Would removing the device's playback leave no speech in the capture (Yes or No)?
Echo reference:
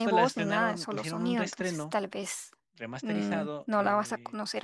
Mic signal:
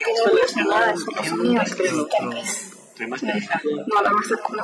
No